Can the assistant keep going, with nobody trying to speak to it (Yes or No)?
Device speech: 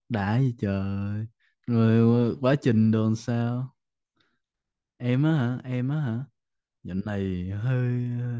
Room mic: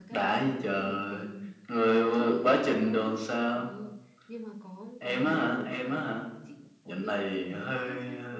No